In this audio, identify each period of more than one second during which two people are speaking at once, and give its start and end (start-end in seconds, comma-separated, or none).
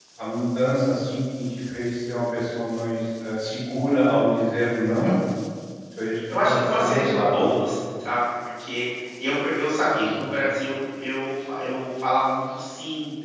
6.3-7.5